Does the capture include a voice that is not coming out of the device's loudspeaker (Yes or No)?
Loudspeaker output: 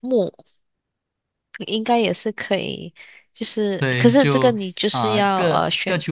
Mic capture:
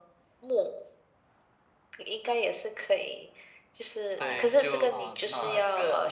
Yes